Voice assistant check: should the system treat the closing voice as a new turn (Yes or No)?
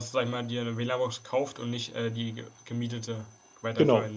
Yes